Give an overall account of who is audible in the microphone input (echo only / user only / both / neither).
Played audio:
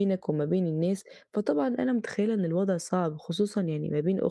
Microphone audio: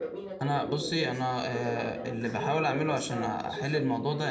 both